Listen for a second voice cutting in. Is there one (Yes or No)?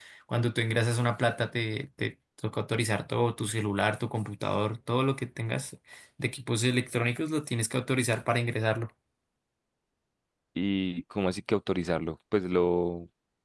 No